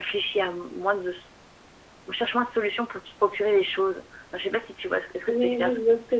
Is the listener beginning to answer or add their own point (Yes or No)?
Yes